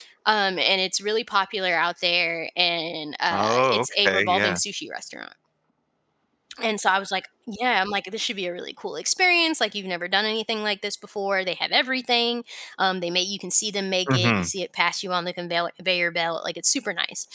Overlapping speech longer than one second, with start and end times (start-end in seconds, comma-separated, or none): 3.3-4.6